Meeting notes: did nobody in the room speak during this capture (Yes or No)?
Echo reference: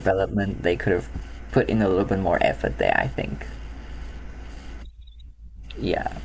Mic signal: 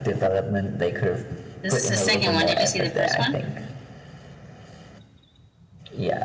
No